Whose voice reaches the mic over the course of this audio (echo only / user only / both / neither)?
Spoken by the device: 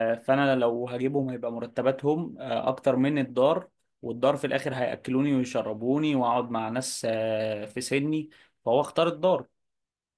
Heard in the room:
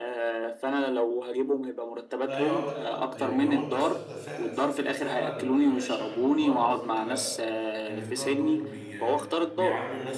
both